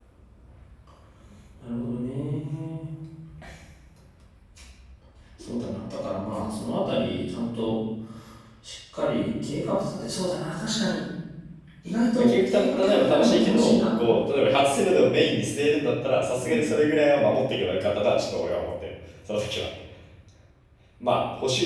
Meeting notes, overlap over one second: present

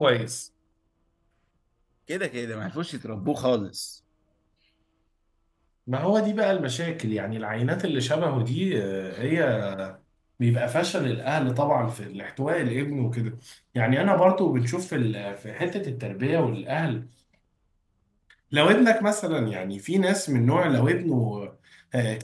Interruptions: none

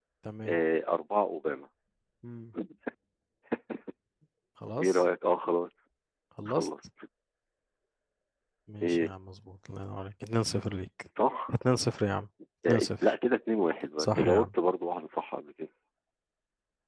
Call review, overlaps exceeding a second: none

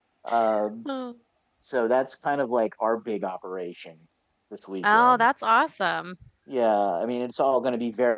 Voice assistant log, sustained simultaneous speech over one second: none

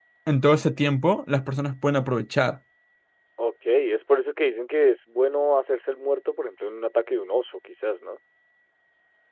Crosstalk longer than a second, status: none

